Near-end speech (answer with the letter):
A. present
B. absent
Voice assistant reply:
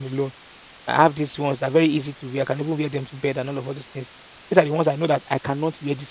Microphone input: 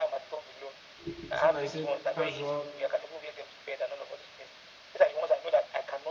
A